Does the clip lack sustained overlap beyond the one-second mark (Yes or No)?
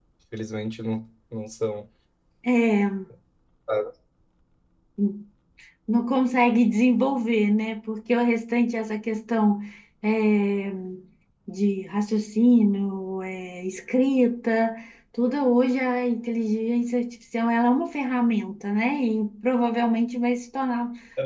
Yes